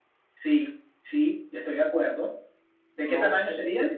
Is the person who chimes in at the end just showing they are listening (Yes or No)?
No